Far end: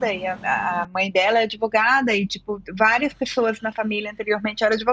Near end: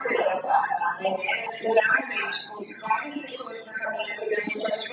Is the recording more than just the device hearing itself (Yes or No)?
No